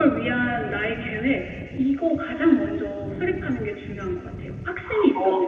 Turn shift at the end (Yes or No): Yes